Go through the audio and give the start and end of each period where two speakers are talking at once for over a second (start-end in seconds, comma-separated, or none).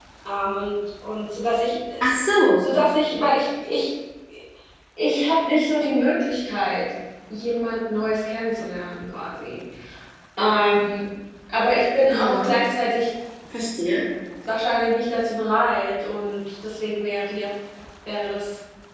none